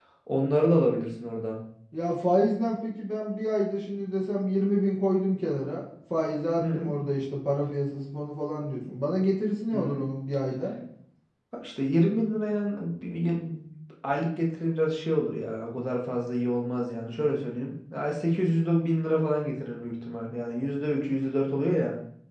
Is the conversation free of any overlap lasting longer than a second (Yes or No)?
Yes